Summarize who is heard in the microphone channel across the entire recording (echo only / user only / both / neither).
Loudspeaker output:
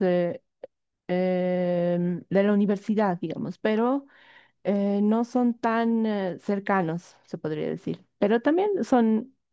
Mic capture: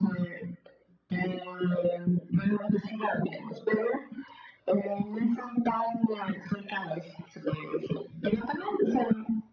echo only